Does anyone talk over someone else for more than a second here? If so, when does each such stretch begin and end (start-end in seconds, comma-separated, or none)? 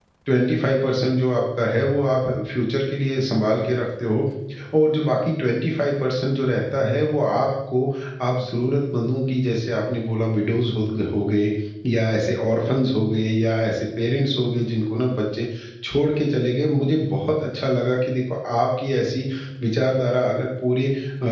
none